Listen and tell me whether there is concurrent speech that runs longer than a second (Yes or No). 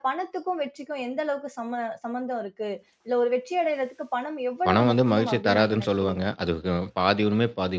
Yes